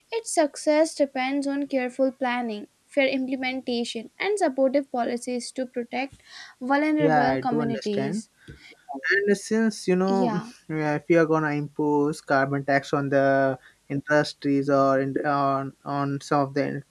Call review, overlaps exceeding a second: present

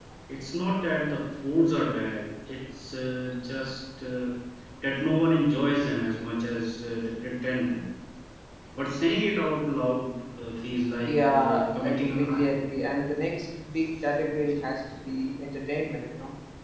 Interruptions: present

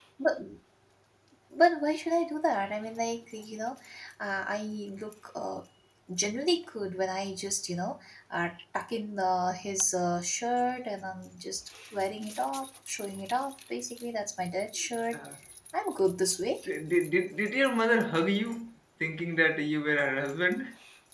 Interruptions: none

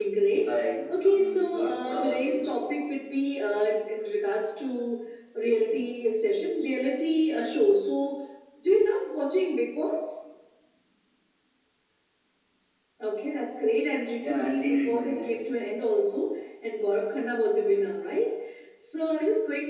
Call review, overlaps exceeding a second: present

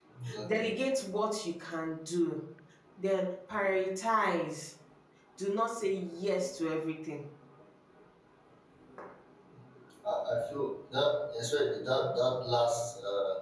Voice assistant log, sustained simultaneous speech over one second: none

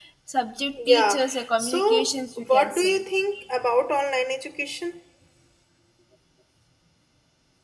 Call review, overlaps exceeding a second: present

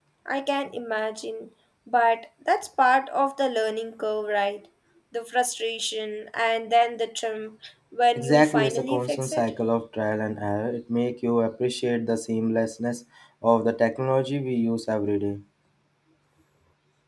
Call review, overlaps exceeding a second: present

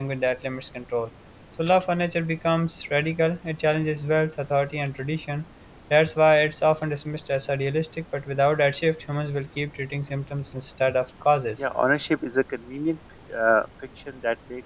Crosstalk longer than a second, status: none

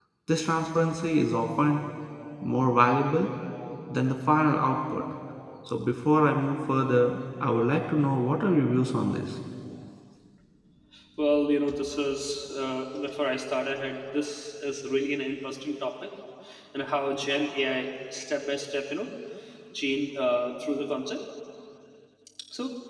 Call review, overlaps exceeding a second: none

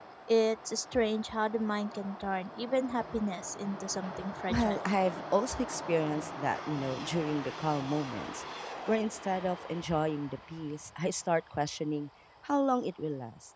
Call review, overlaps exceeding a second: none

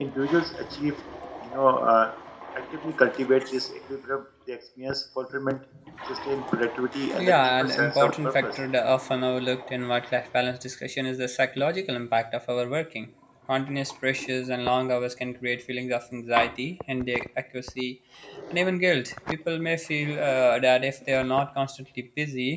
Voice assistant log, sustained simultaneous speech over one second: present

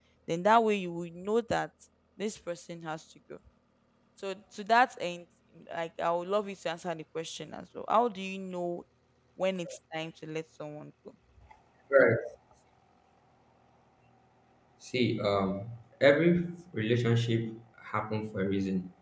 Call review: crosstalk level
none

